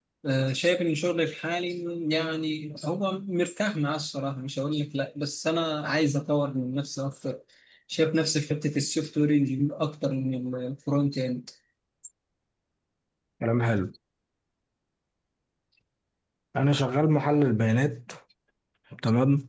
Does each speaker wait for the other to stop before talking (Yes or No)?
Yes